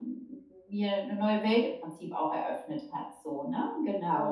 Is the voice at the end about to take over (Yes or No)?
Yes